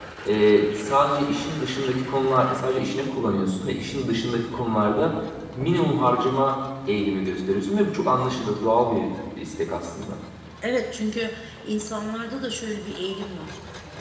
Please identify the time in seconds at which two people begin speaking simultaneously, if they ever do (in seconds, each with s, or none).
none